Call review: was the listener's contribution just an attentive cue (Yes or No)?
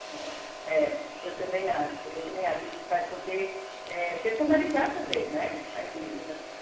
Yes